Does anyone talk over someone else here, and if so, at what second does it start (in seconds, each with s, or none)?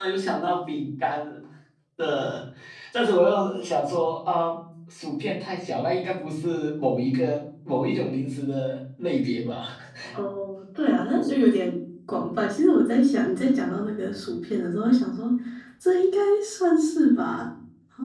none